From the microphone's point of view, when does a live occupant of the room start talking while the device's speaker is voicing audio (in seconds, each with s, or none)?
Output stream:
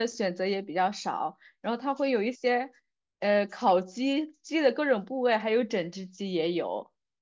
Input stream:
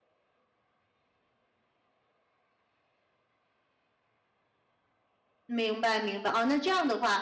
5.4 s